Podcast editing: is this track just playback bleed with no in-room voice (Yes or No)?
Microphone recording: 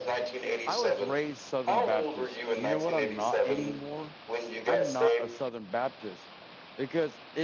No